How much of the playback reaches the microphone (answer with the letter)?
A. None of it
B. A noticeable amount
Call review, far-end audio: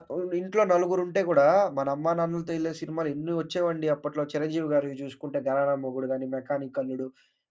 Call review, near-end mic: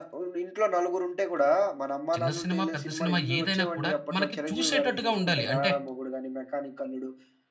B